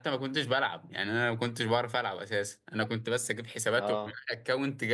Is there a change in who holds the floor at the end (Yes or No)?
No